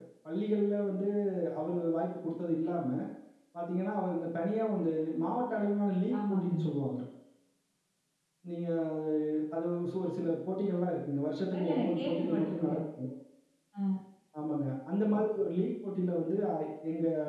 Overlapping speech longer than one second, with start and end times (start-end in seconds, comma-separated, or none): 11.6-12.8